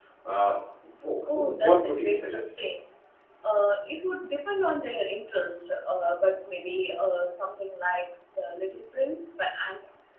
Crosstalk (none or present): present